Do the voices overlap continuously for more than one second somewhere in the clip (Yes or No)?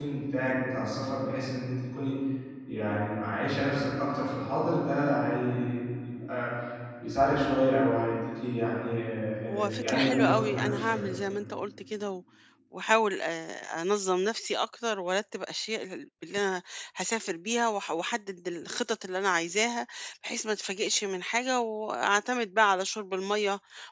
Yes